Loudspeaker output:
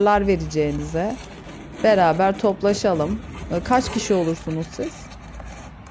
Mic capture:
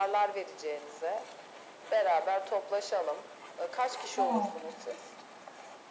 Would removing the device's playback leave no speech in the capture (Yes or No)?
No